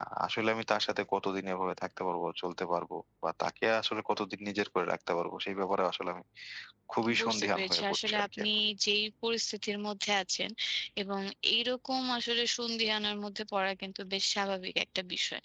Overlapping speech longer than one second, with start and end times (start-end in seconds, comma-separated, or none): 7.2-8.4